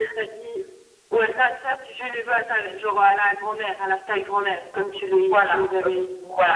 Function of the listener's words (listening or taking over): taking over